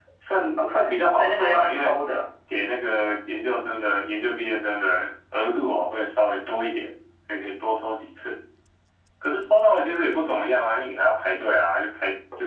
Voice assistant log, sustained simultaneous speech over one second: present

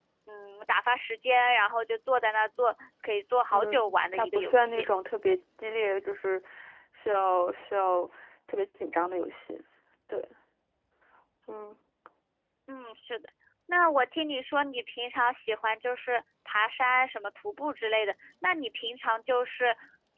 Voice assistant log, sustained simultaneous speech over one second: present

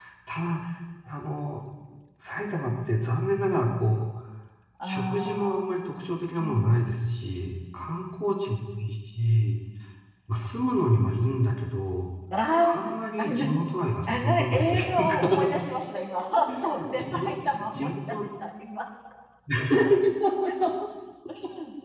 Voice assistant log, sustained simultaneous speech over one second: present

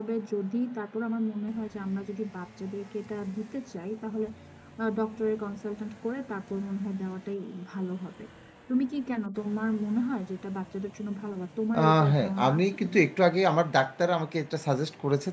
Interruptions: present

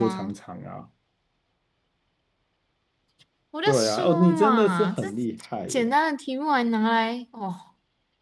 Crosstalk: present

